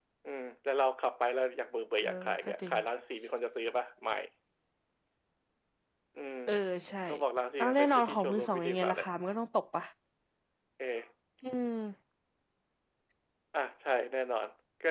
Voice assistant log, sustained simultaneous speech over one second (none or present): present